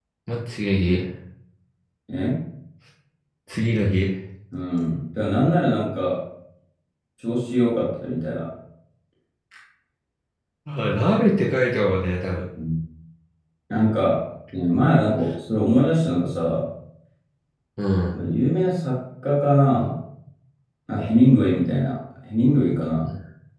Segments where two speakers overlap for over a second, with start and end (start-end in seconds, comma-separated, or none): none